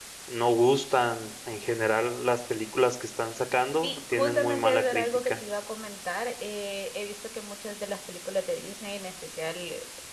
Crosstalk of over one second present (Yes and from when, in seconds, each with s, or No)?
Yes, from 3.8 s